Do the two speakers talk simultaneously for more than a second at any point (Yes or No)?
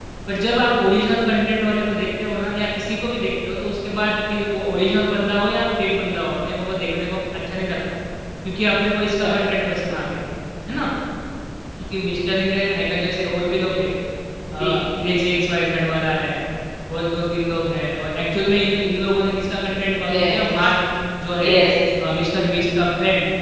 No